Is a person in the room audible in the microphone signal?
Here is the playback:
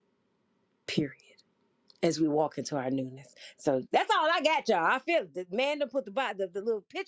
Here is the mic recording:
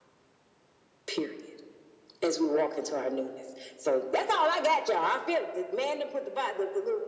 No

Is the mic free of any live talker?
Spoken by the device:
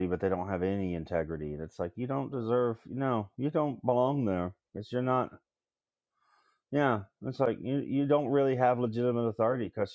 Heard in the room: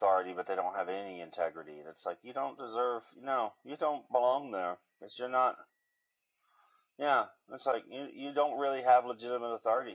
Yes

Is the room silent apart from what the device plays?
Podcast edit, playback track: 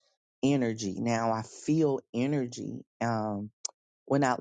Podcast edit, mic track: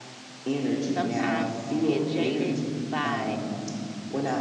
No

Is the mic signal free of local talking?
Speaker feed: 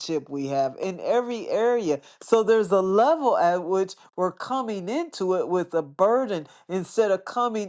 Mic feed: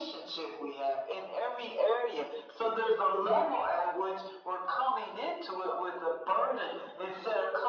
Yes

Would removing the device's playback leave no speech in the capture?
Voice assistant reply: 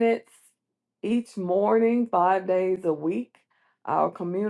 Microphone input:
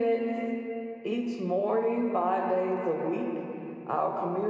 Yes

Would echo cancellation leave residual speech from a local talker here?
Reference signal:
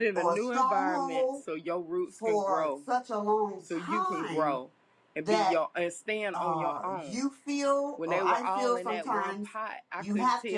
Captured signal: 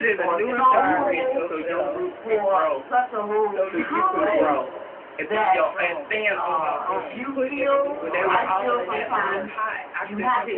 Yes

